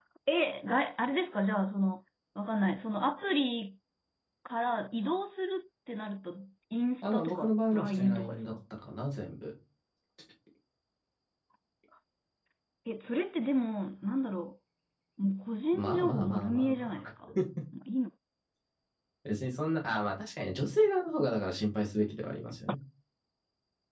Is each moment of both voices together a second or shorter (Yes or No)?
No